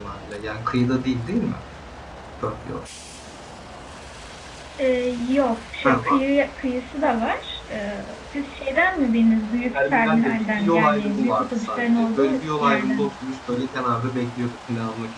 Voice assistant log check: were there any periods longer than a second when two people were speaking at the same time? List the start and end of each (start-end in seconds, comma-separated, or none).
9.7-13.1